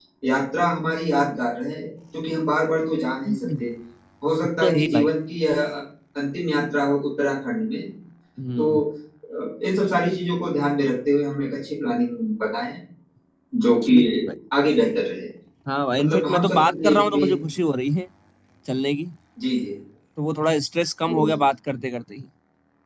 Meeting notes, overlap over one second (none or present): present